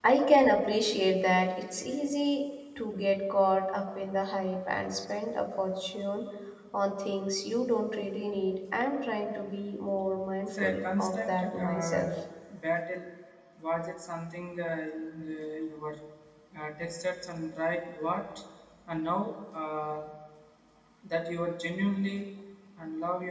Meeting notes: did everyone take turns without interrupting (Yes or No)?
No